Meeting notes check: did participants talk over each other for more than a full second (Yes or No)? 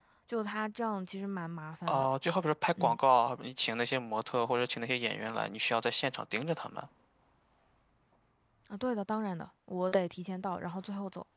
No